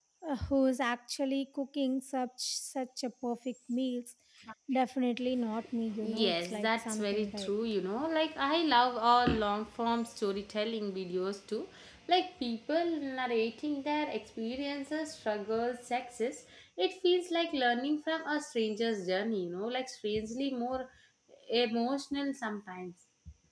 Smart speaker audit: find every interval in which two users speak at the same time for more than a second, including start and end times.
6.0-7.5

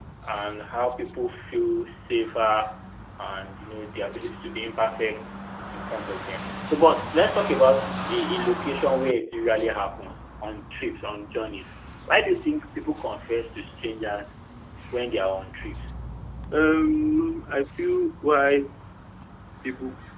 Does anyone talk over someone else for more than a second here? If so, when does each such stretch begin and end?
none

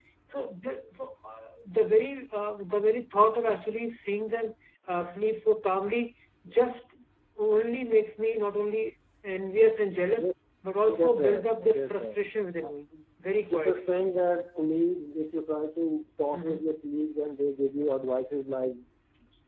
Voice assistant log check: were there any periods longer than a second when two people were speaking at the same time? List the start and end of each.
10.9-12.1

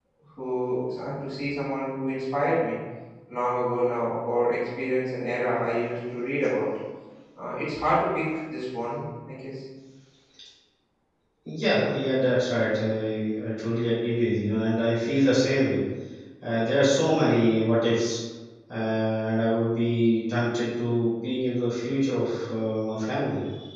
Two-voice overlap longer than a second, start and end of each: none

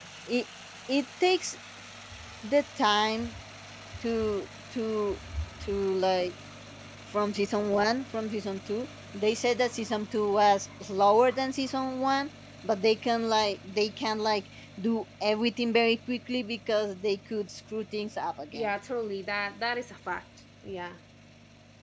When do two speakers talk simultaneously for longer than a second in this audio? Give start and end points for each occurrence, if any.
none

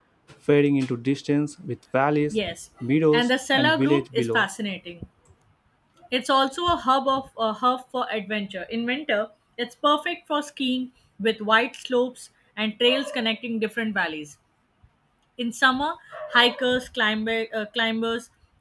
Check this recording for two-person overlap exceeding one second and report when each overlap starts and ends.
3.1-4.5

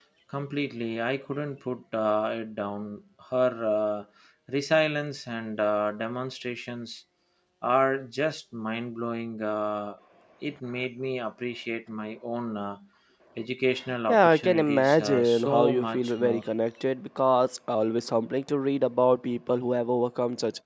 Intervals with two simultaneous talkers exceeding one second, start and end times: 14.1-16.4

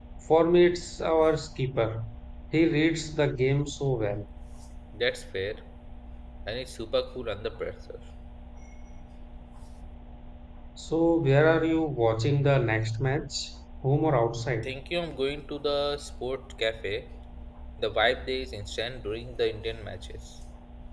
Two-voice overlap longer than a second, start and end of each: none

